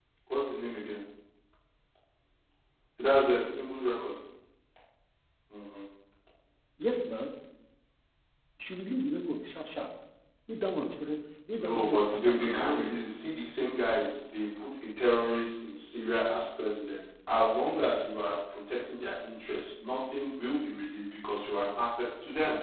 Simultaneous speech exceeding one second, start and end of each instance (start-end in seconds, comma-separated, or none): 11.6-13.1